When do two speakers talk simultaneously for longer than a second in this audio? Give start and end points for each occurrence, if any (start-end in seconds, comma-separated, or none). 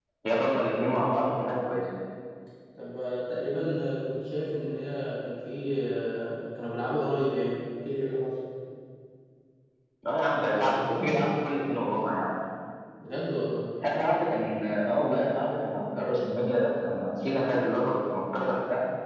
none